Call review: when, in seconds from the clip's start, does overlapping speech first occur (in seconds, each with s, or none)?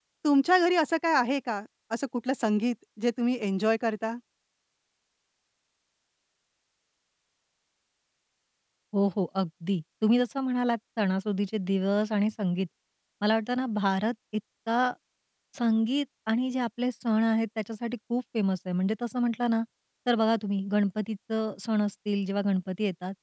none